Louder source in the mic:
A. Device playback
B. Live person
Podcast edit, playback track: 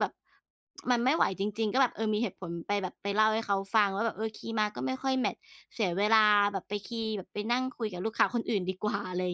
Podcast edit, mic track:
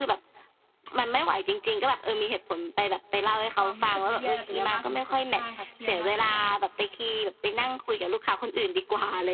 A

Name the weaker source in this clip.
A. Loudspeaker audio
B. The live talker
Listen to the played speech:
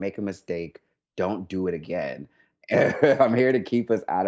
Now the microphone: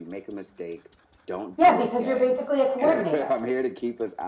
A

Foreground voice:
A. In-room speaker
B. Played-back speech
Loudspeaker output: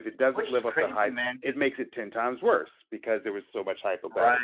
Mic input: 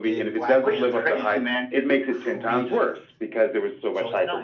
B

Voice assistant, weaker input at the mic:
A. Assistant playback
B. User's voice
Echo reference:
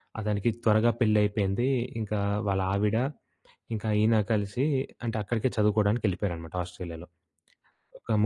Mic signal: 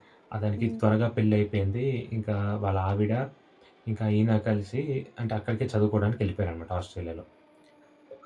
B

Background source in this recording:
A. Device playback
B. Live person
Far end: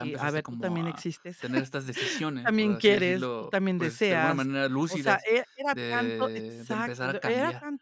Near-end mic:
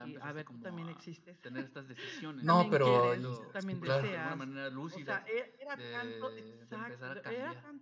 A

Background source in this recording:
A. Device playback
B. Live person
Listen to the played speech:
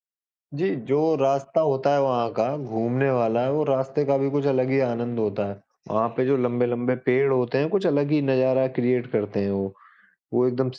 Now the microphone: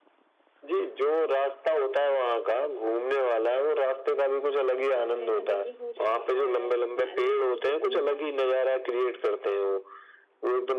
B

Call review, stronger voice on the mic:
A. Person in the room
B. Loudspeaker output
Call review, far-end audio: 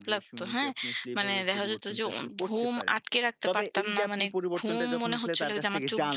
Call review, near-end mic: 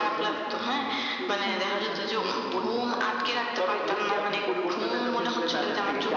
B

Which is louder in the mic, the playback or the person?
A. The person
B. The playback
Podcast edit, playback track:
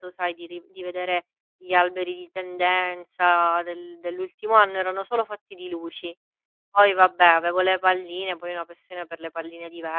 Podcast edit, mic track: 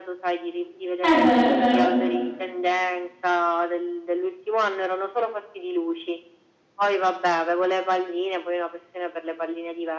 A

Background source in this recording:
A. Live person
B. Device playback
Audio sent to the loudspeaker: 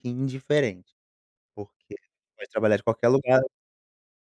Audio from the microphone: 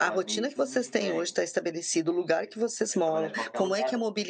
B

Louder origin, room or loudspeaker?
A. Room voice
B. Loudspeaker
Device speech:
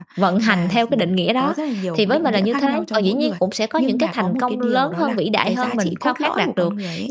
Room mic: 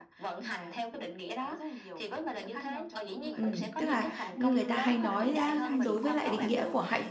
A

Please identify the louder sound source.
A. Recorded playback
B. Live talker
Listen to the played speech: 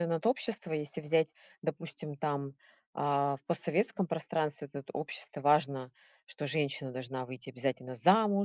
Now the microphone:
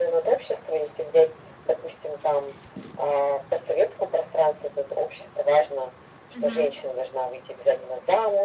A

